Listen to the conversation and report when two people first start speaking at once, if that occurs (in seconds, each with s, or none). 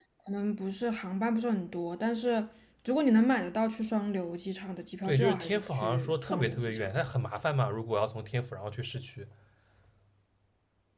5.1 s